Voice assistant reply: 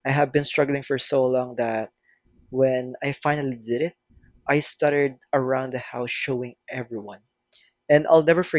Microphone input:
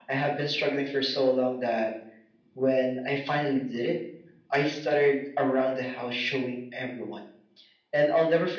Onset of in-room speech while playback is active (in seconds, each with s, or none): none